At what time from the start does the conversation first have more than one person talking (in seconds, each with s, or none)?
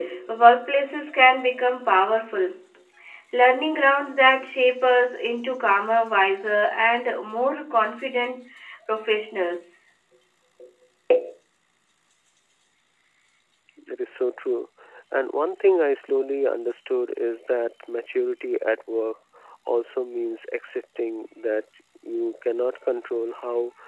none